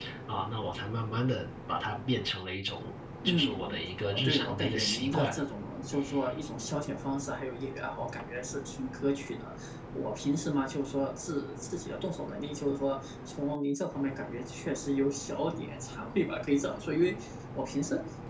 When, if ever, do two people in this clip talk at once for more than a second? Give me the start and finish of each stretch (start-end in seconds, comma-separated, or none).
4.1-5.4